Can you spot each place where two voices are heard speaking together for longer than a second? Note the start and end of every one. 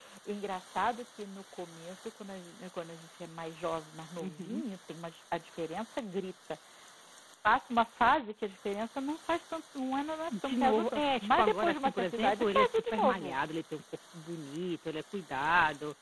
10.4-13.4

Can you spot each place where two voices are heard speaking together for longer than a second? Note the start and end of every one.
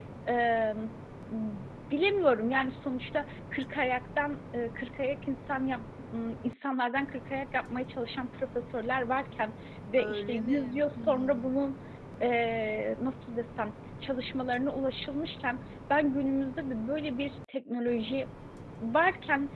10.0-11.6

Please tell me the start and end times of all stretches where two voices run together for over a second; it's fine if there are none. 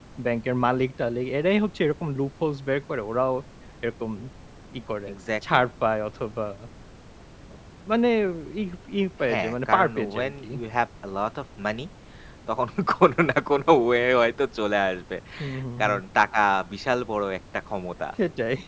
9.3-10.5

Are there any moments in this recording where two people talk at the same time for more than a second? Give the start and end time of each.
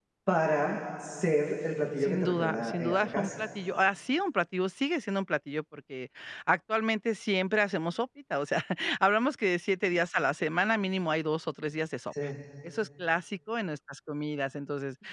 2.0-3.5

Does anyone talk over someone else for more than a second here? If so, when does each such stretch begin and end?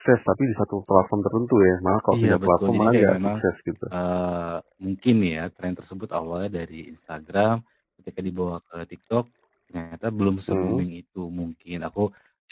2.1-3.4

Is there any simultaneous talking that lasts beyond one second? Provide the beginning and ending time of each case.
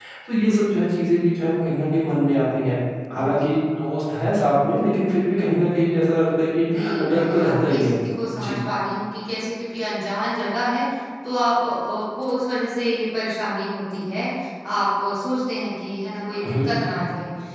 6.5-8.0

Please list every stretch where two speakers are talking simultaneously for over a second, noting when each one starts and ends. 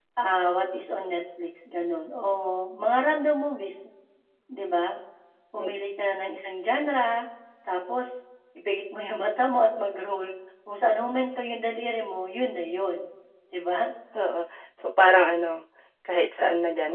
none

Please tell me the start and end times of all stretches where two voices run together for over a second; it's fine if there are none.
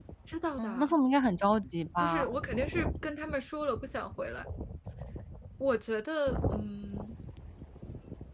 none

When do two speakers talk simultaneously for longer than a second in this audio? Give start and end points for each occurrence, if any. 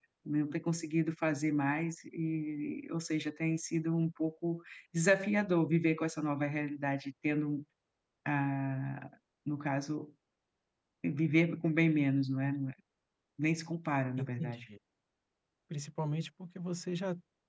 none

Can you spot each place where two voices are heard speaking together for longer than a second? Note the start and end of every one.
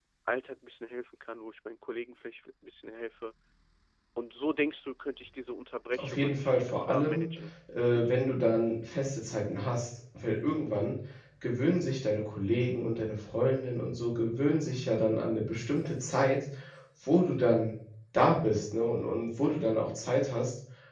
6.0-7.3

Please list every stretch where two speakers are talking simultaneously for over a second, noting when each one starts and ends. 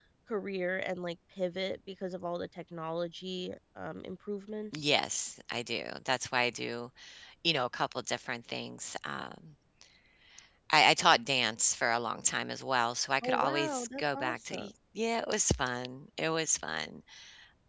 13.2-14.7

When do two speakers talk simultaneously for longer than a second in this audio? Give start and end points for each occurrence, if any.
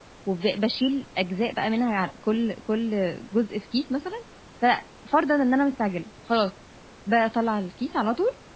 none

